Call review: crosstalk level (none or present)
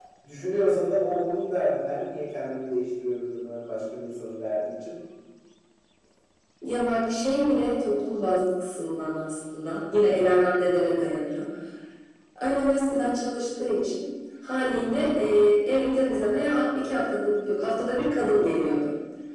none